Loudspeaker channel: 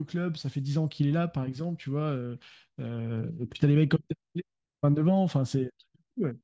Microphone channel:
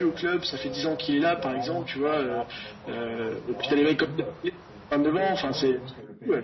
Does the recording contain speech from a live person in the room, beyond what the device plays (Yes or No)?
Yes